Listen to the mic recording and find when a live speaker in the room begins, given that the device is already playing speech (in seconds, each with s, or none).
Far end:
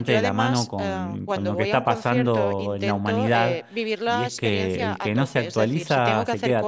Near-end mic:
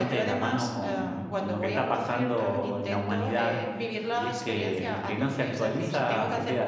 none